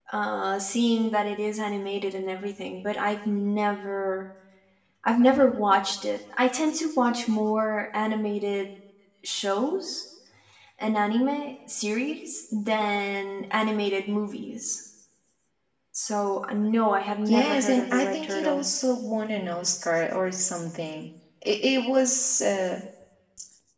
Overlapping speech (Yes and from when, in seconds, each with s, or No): Yes, from 17.3 s